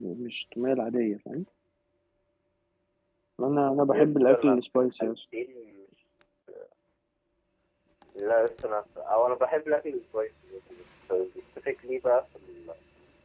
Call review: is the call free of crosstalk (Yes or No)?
No